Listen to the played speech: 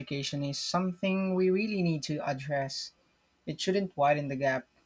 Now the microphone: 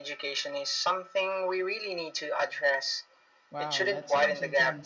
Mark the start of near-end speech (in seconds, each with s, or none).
3.5 s